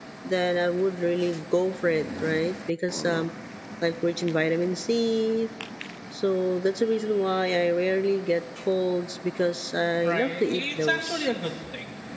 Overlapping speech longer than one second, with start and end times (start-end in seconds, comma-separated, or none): 10.0-11.3